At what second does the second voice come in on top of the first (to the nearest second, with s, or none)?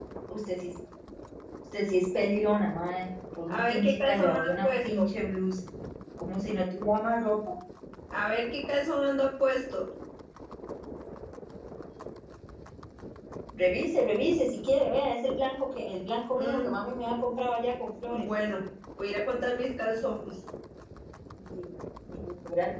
3 s